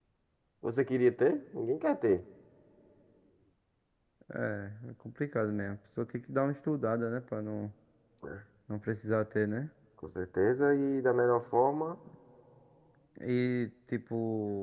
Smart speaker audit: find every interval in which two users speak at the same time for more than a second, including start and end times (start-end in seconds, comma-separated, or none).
none